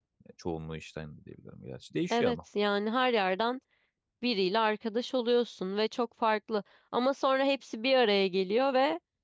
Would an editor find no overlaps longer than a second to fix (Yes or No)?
Yes